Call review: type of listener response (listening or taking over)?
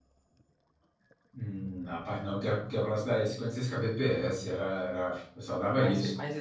taking over